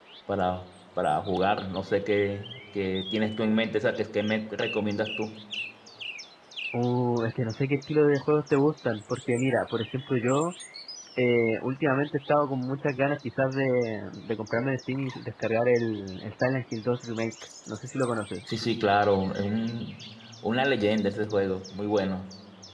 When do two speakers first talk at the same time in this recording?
none

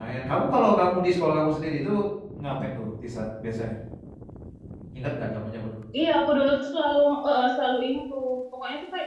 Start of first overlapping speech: none

